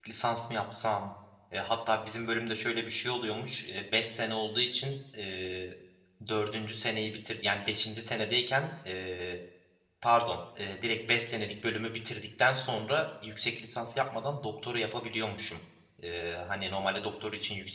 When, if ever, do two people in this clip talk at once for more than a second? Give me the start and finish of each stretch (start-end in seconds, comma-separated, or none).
none